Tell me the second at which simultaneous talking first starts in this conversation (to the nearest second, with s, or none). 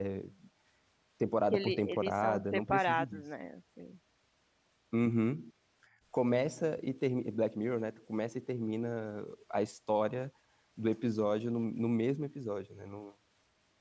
2 s